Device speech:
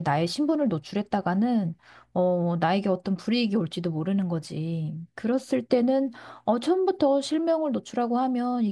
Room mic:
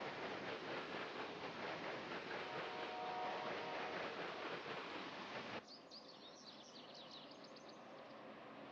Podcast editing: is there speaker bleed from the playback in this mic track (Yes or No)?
No